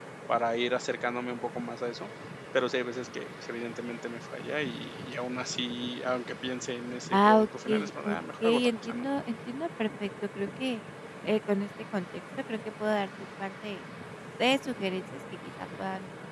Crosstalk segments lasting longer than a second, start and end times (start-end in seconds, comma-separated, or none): 7.1-9.1